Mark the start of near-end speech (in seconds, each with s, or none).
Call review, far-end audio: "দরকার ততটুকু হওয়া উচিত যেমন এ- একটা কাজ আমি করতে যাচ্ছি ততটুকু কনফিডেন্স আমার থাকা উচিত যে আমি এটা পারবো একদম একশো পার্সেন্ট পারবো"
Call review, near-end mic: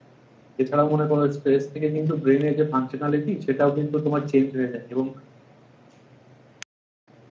0.6 s